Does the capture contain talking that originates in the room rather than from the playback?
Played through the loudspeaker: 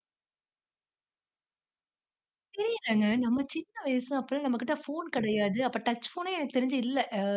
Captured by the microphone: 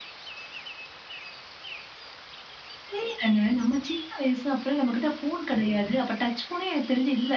No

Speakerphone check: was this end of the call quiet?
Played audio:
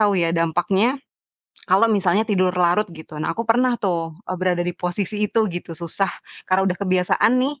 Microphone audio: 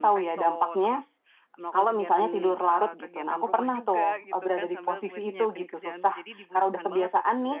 No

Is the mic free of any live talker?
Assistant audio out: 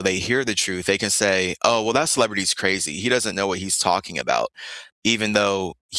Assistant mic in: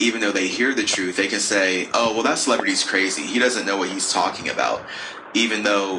Yes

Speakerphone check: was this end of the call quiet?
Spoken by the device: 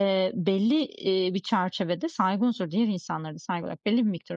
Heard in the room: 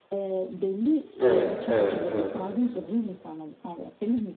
No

